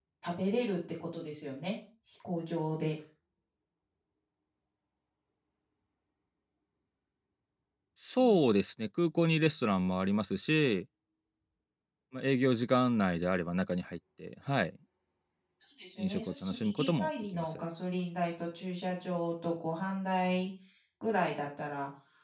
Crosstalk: present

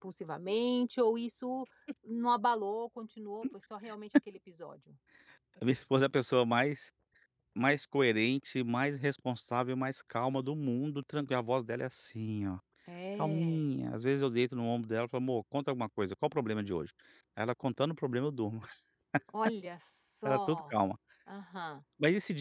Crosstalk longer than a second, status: none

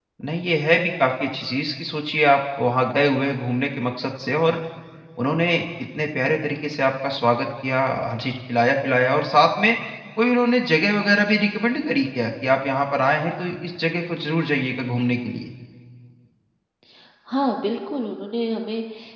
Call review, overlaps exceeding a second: none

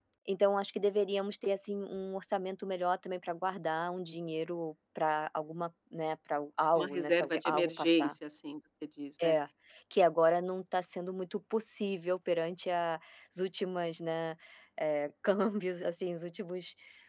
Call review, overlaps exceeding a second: present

